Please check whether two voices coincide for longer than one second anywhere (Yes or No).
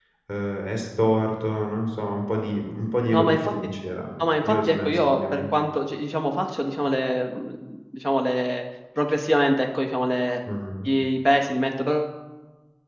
Yes